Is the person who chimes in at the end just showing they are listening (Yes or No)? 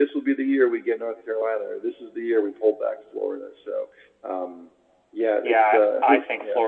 No